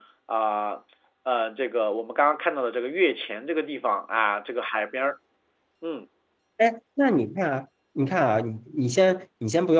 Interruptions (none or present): none